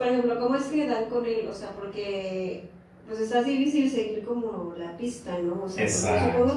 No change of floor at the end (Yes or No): Yes